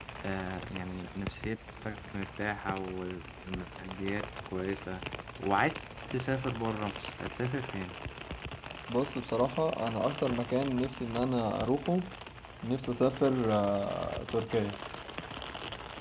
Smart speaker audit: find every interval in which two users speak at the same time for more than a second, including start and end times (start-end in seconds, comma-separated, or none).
none